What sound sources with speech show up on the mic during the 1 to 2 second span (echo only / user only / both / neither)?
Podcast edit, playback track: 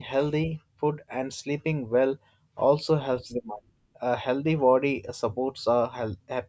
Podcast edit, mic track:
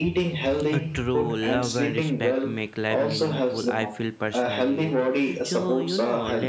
both